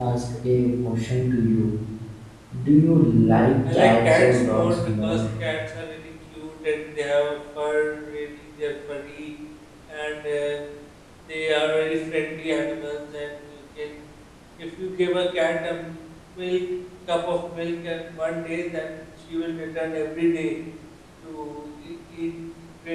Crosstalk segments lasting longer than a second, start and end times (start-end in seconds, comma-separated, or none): 3.7-5.2